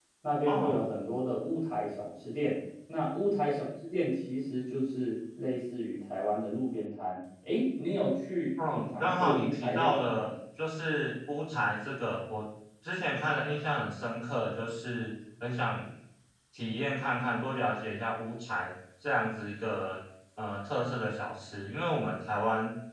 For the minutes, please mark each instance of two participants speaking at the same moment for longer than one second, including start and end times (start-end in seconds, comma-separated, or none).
8.6-10.3